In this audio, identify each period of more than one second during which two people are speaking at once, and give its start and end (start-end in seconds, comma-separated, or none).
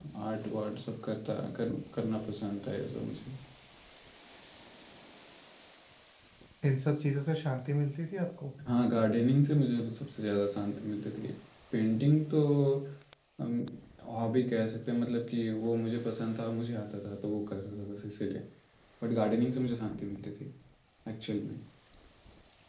none